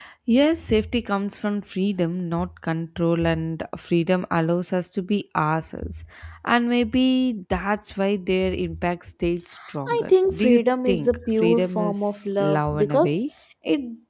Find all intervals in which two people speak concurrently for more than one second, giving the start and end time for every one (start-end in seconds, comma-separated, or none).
9.9-13.2